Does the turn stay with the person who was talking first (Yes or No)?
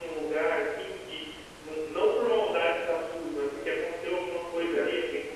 Yes